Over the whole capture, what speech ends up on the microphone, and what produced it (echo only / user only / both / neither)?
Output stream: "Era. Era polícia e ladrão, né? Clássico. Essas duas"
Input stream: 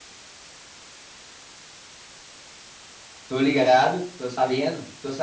user only